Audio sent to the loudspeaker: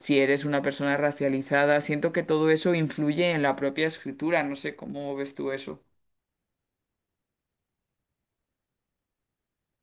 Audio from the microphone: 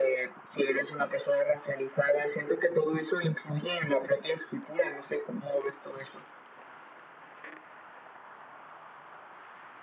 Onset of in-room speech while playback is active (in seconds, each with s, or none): none